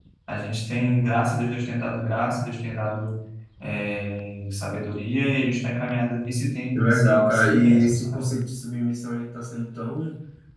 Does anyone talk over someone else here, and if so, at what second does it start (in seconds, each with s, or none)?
6.8 s